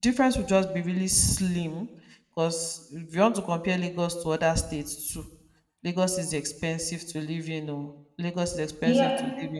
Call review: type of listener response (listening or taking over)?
taking over